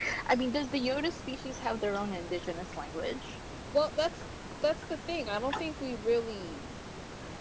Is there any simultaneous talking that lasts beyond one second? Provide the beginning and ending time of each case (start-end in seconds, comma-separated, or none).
none